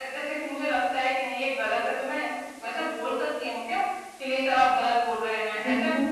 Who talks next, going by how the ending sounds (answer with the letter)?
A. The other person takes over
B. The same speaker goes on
A